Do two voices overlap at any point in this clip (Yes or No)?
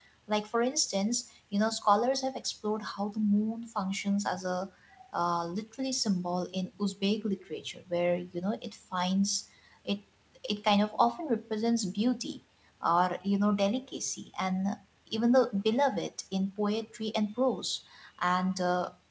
No